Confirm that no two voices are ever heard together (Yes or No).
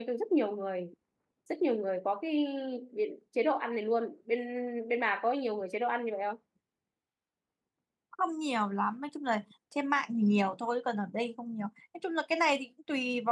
Yes